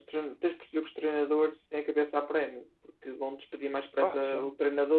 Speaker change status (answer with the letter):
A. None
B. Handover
A